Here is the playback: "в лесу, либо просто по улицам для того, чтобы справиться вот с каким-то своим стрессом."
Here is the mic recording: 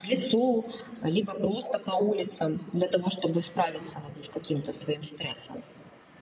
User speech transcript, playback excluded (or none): none